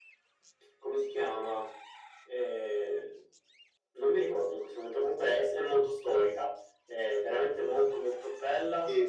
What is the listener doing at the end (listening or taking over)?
taking over